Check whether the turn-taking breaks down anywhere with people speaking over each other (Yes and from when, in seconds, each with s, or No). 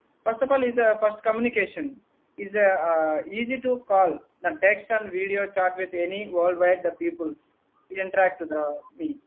No